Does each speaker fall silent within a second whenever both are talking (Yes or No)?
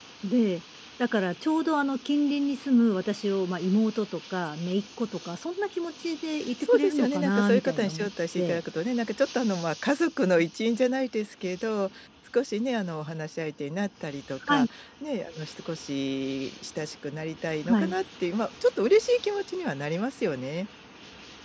No